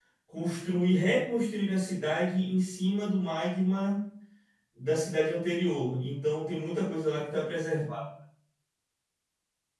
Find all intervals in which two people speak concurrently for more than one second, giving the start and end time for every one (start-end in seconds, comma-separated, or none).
none